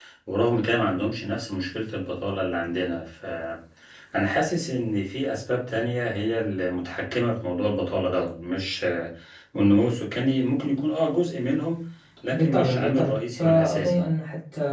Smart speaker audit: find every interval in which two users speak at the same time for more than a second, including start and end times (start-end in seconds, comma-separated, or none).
12.3-14.0